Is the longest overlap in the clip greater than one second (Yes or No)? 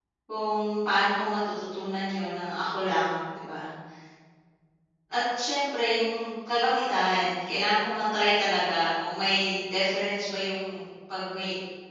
No